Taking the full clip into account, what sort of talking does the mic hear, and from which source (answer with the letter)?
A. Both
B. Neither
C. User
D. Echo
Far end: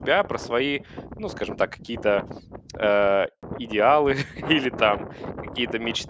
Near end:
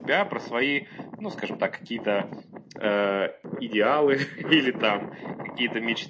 D